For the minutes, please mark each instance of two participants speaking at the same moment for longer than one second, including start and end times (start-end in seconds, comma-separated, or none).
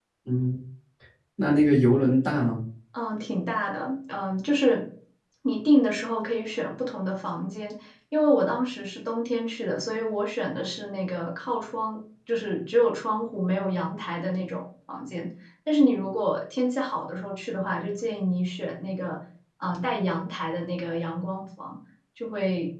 none